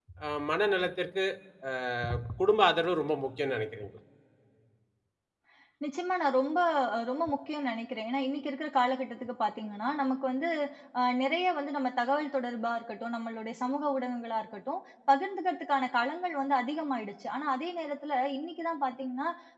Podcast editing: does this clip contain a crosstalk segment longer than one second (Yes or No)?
No